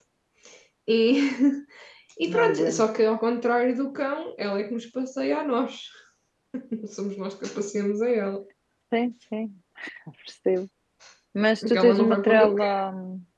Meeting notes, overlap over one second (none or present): present